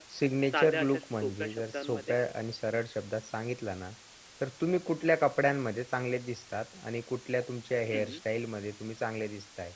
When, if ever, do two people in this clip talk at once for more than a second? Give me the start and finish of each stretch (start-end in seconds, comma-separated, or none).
0.5-2.1